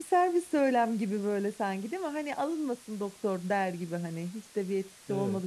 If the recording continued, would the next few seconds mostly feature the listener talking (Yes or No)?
Yes